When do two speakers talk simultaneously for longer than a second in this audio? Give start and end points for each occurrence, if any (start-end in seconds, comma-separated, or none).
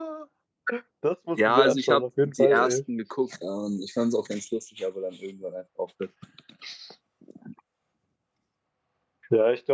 1.4-2.8